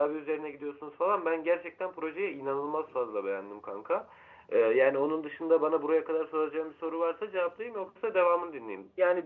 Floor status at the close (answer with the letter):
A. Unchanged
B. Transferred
B